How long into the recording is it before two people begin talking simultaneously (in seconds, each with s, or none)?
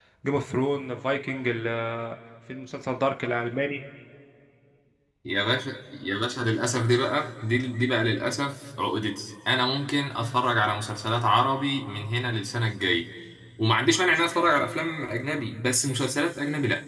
none